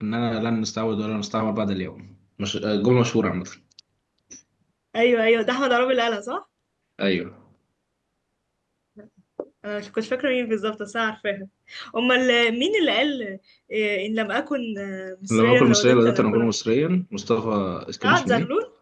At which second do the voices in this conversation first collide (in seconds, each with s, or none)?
15.3 s